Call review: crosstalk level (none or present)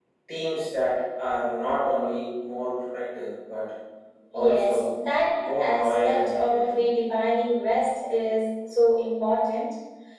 present